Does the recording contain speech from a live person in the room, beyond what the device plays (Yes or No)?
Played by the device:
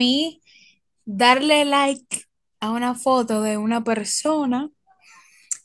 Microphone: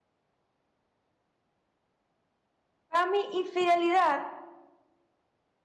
Yes